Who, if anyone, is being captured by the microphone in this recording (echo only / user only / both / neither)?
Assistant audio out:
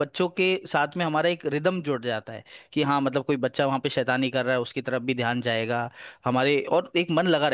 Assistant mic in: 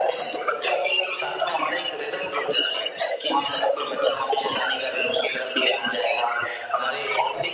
echo only